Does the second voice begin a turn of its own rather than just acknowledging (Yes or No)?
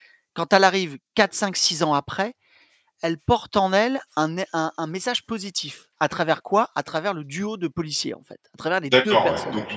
Yes